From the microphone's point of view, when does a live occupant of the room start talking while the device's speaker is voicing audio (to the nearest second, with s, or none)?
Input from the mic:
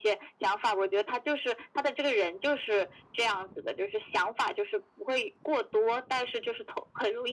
none